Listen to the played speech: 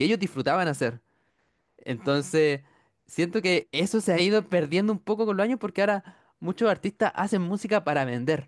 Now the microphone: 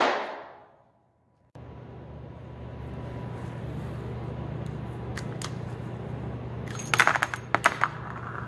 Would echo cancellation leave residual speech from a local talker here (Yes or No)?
No